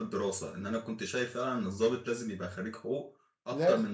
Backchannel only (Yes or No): Yes